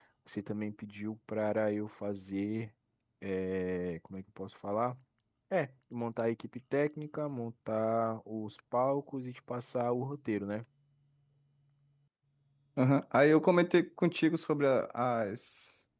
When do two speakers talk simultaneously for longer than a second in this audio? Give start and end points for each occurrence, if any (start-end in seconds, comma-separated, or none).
none